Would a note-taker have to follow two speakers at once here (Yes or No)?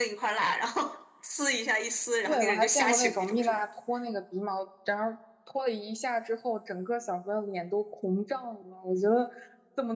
Yes